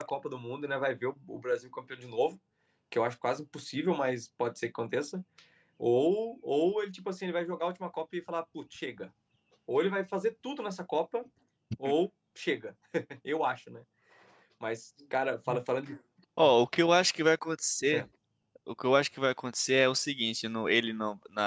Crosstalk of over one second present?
No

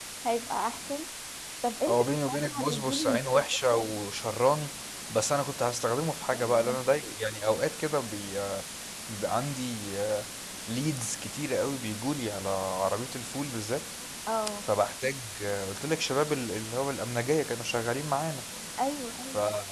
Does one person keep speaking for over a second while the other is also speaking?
Yes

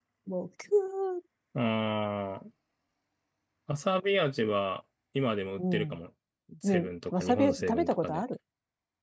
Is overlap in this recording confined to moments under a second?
No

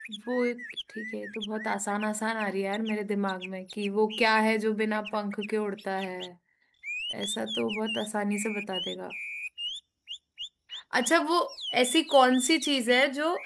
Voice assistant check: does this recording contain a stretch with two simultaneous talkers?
No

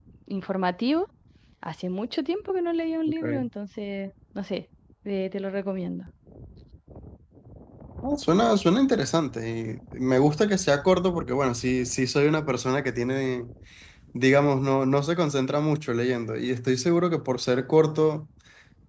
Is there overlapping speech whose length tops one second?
No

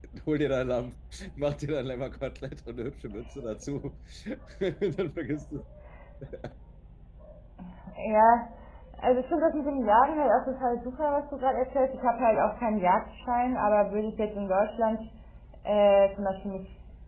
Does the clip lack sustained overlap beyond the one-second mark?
Yes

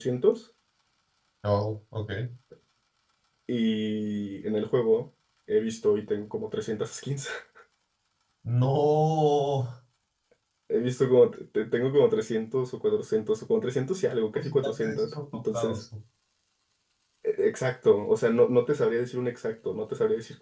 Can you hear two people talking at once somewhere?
Yes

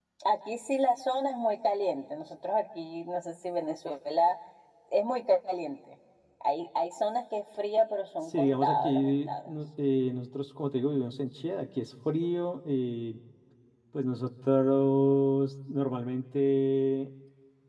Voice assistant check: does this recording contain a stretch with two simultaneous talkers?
Yes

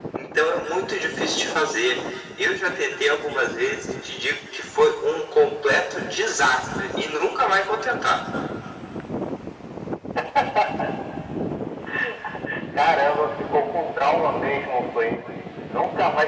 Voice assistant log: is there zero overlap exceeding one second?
Yes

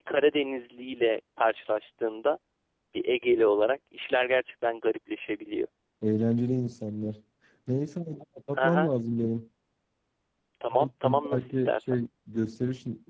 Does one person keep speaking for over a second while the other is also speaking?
Yes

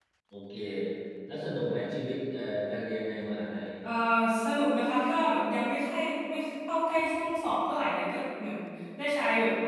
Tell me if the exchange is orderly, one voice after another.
Yes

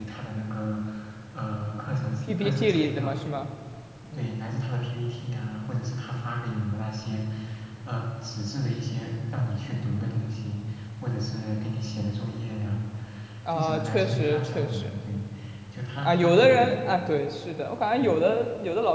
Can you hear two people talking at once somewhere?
Yes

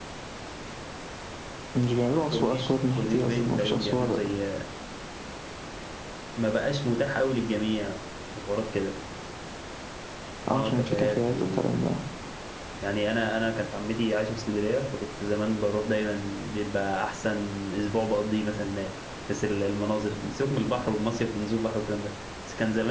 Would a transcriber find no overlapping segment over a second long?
No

